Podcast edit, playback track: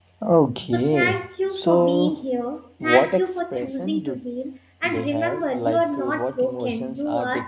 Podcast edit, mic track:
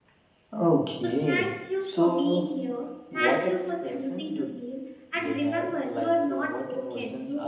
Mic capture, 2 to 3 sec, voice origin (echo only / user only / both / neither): echo only